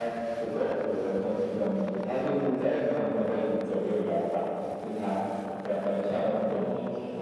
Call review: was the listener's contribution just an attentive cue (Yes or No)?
No